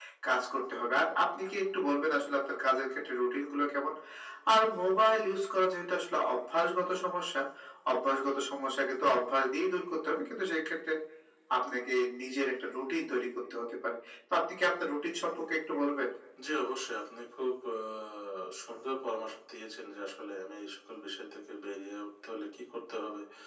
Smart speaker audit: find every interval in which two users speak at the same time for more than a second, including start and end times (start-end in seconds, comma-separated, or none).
none